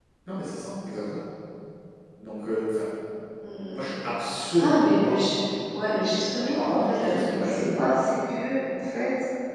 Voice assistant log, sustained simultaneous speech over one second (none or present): present